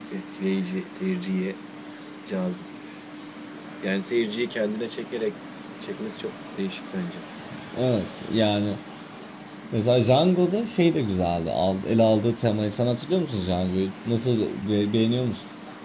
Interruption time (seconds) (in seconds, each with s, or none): none